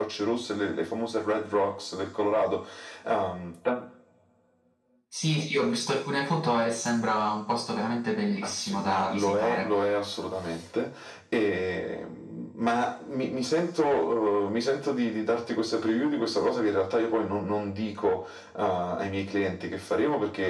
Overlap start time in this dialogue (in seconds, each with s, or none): 8.3 s